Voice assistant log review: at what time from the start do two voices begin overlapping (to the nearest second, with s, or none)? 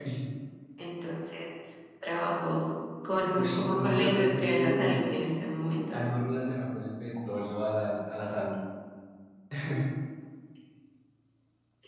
3 s